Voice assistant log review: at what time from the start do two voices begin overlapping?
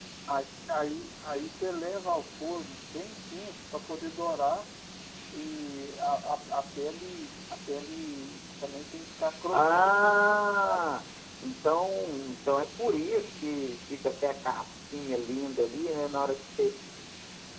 9.5 s

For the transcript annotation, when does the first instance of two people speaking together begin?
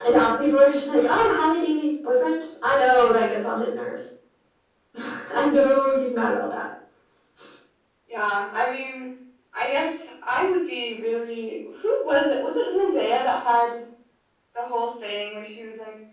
none

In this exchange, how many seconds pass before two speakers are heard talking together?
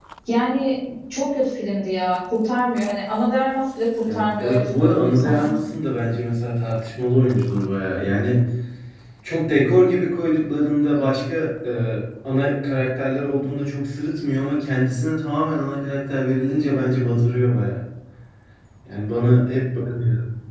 4.1 s

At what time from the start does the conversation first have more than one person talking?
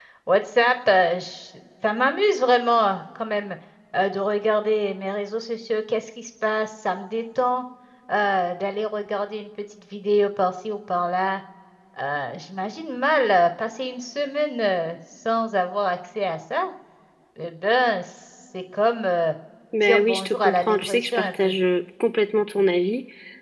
19.8 s

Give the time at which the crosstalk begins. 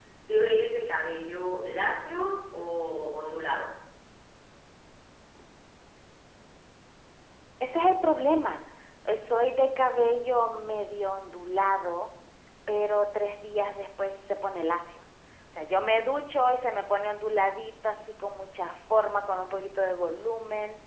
none

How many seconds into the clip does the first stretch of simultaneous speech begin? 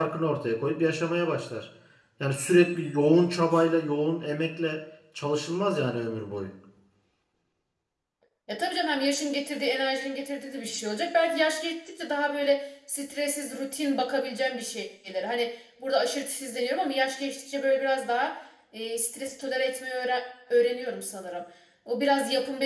none

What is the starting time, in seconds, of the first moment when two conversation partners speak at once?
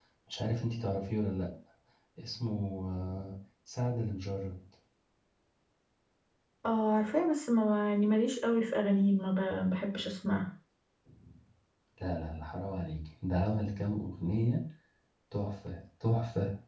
none

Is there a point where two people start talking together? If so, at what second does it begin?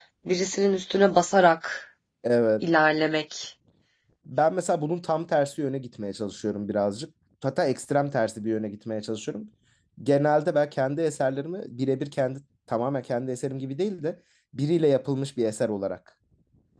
none

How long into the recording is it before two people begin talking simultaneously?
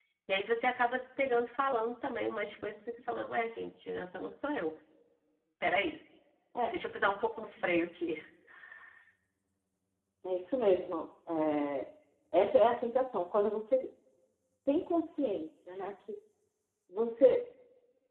none

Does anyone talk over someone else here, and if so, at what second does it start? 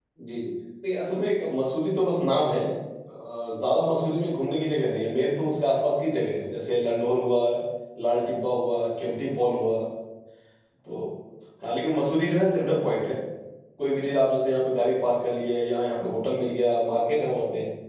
none

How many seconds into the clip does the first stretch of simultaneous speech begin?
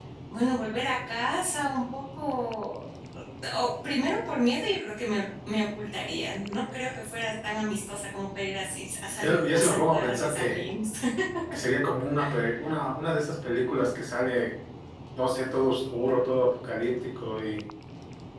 9.2 s

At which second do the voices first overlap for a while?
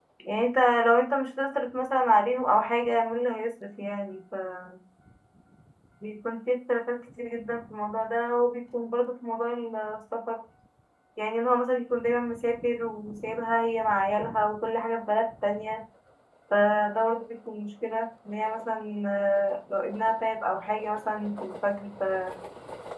none

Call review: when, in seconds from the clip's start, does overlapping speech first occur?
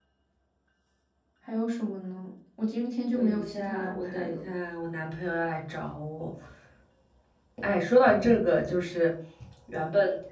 3.1 s

